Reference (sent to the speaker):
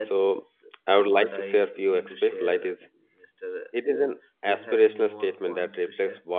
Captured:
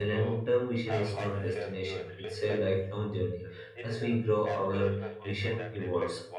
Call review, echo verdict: present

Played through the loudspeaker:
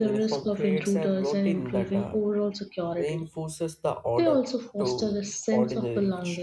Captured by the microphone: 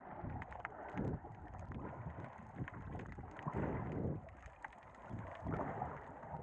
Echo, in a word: none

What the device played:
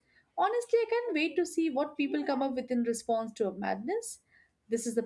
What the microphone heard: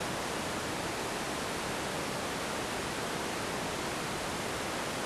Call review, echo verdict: none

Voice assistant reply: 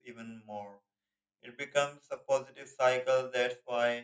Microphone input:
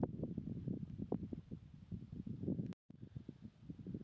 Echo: none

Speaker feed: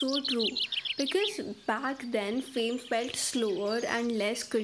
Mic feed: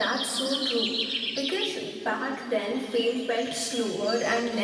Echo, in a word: present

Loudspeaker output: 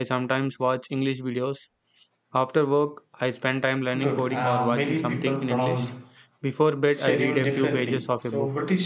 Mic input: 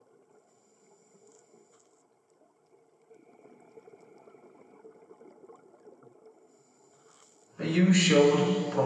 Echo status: none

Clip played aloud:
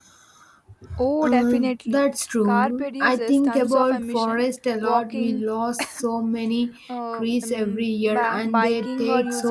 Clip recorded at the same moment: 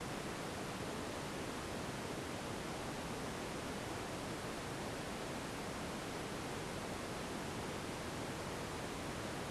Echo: none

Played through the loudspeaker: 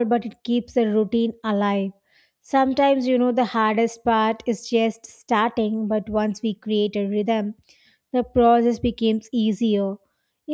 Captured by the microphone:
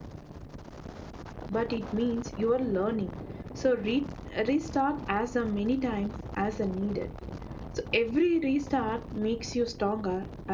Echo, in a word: none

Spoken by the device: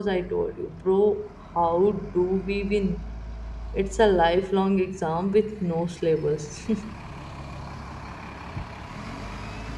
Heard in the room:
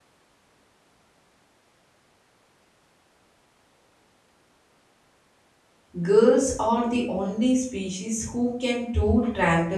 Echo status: none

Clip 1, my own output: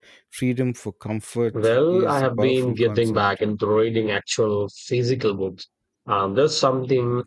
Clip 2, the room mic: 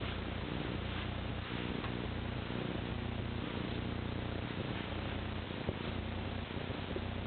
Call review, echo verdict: none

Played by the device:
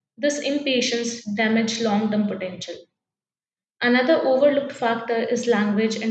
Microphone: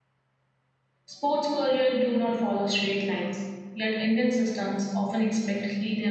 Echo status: none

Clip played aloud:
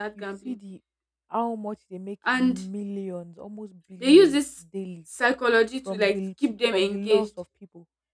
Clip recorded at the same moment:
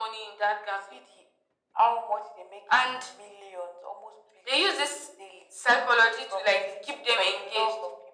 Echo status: present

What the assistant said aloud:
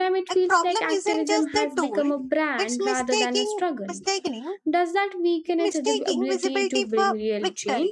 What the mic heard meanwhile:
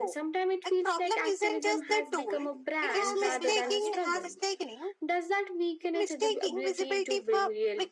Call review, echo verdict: present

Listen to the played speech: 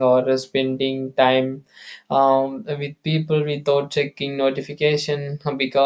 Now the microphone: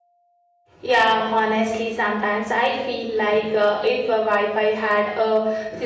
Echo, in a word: none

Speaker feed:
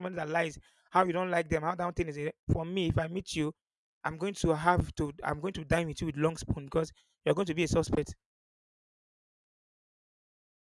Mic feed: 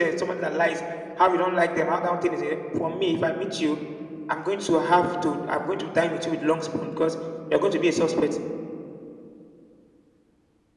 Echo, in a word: present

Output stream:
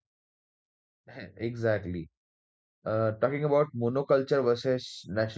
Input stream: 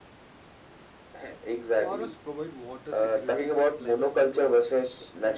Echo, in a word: present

